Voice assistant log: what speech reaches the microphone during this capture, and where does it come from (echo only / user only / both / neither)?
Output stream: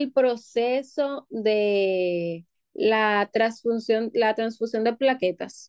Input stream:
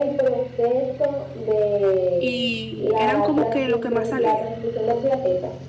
both